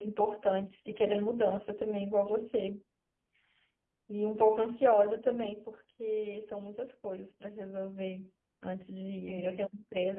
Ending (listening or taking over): listening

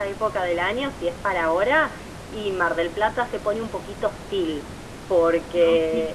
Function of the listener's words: listening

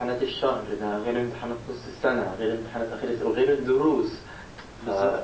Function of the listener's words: listening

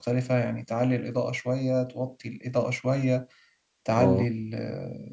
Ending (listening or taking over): listening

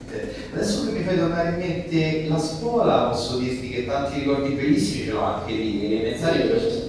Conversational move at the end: listening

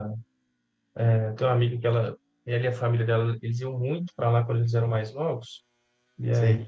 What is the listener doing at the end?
listening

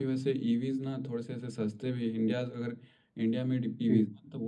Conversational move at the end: listening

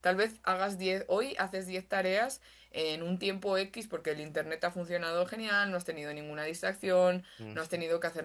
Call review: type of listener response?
listening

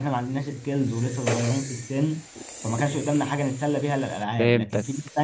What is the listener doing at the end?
listening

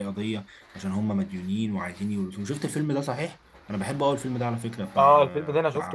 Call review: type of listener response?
taking over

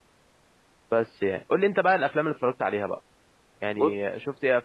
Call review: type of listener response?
listening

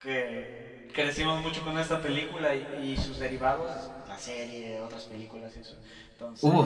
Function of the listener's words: listening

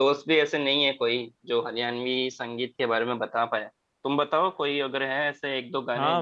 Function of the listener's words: taking over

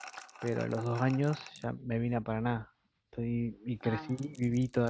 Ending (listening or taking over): listening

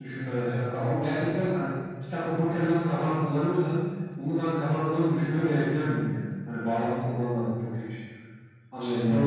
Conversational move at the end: taking over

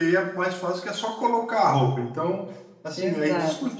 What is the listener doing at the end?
listening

